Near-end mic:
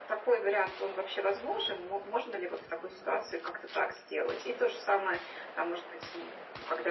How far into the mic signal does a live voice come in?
none

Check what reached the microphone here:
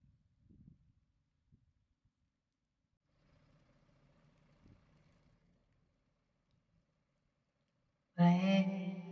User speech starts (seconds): 8.2 s

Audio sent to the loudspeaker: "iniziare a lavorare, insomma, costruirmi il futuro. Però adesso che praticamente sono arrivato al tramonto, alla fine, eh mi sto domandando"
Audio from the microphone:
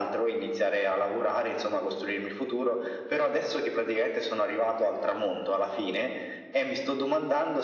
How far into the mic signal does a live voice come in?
none

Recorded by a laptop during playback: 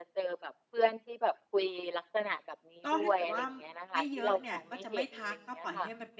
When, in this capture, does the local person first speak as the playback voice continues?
2.8 s

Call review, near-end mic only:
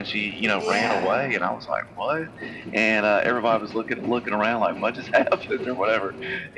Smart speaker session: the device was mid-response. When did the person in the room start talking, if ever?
0.5 s

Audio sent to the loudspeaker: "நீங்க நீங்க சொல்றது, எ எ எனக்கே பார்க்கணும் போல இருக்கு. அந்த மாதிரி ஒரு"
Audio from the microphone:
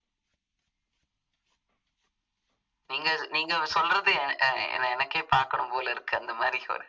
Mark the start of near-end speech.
none

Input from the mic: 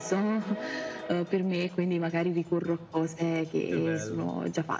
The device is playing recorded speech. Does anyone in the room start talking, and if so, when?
3.7 s

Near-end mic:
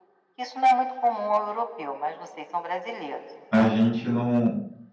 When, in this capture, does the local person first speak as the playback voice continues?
3.5 s

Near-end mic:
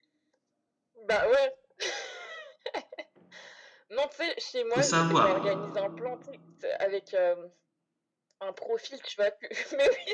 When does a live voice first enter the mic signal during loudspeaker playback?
4.7 s

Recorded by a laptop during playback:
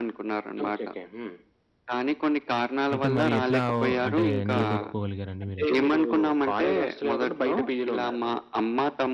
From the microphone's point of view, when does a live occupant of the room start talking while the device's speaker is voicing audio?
2.9 s

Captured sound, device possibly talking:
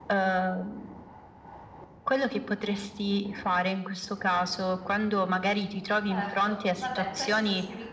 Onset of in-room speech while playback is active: 6.1 s

